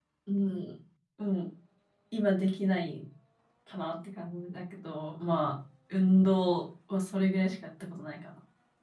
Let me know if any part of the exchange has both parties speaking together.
No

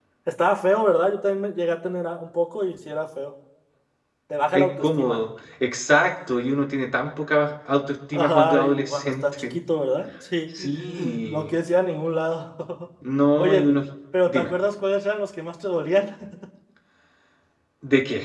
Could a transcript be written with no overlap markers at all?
No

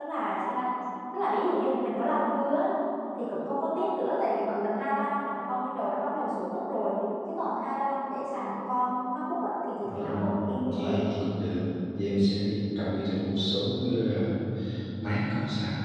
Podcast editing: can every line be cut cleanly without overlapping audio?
No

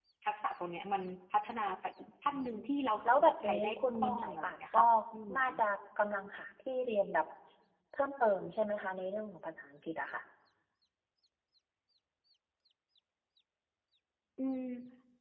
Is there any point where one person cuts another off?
Yes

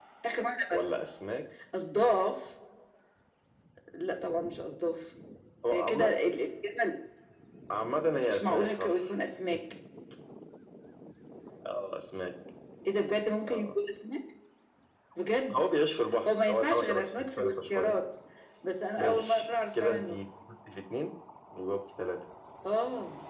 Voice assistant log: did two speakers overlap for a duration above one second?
Yes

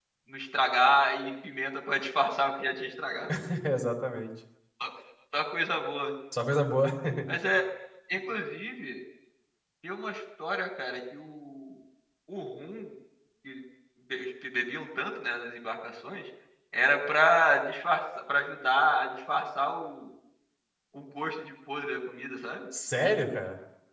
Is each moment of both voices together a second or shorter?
Yes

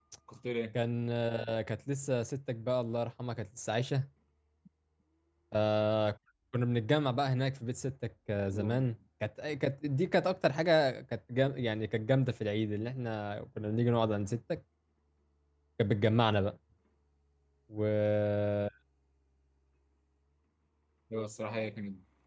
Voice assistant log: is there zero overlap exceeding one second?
Yes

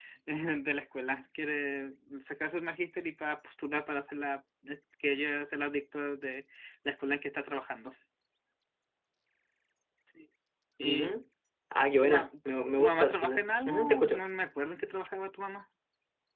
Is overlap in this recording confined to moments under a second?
No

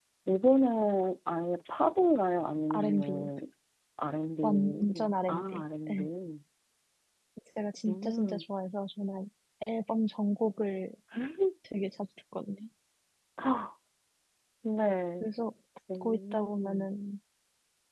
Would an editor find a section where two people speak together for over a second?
Yes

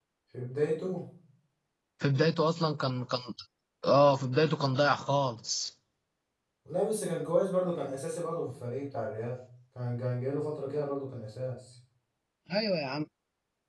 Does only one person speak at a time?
Yes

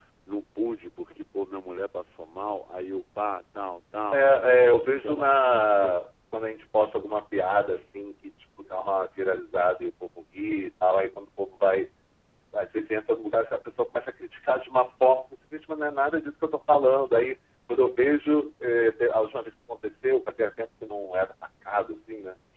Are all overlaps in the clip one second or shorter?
No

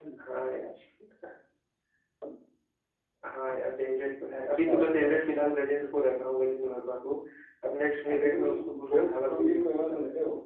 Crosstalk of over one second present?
Yes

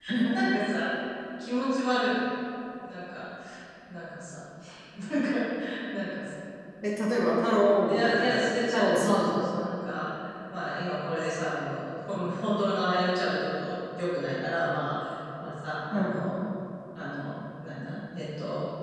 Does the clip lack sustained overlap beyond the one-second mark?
No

